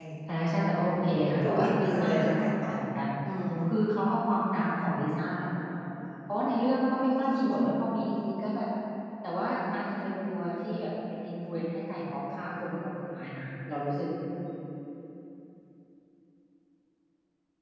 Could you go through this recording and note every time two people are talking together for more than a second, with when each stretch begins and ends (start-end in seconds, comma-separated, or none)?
1.4-2.8